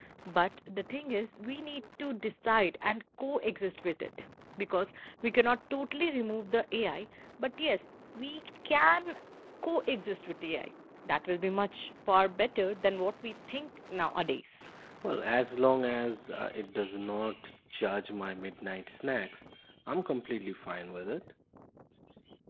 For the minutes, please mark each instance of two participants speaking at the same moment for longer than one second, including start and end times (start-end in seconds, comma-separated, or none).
none